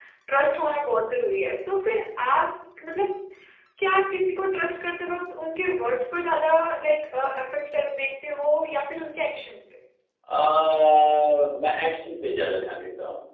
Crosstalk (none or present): none